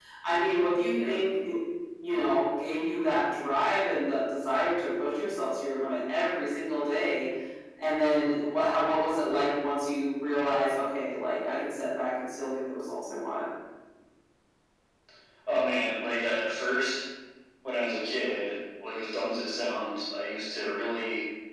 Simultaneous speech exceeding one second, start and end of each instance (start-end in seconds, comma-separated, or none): none